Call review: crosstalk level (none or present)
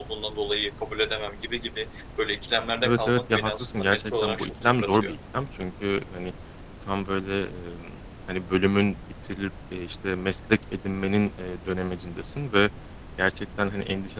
present